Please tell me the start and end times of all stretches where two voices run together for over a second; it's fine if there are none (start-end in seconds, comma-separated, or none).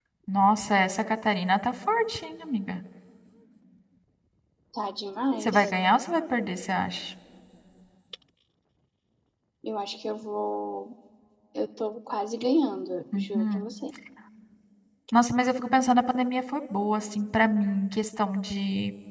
none